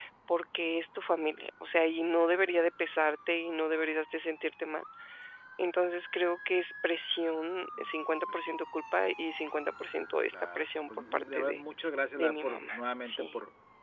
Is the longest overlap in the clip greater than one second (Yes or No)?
Yes